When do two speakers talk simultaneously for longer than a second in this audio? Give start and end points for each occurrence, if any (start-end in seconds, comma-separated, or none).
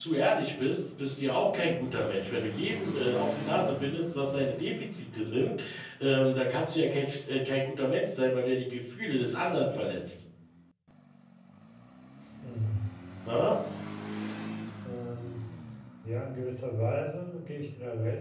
none